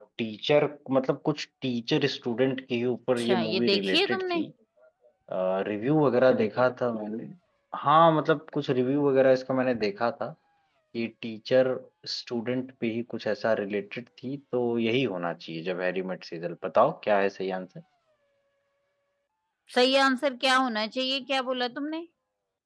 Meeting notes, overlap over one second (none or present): present